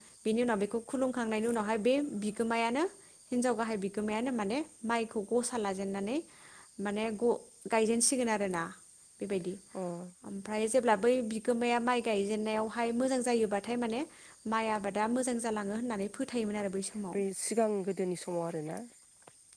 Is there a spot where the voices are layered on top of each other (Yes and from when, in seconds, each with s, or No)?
No